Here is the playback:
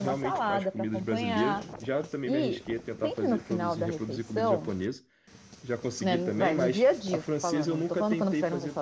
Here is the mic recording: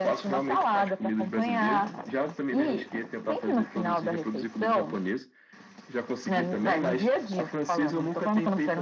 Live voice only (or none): none